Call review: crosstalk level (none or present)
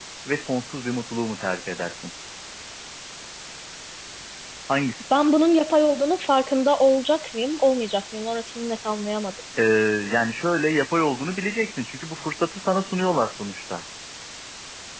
none